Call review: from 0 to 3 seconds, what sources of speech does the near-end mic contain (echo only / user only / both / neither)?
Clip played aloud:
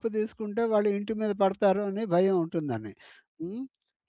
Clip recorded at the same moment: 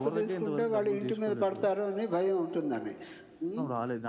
both